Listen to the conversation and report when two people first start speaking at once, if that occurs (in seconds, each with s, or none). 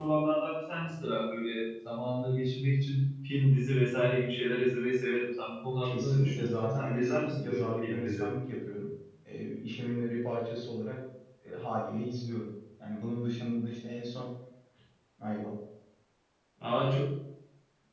5.8 s